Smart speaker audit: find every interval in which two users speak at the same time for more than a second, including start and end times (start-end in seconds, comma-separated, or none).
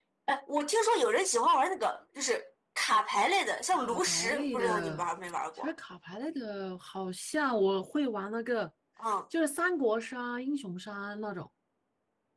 3.7-5.1